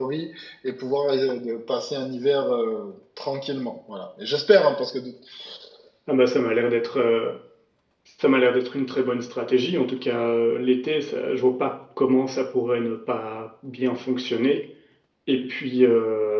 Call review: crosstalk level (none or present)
none